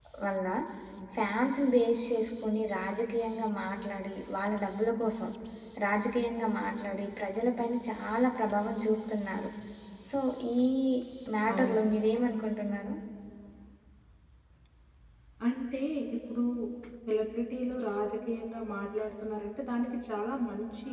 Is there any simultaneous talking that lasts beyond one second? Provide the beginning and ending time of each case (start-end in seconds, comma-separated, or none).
none